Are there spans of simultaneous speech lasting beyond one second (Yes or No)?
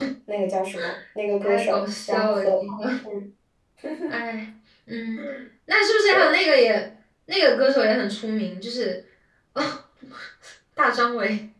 Yes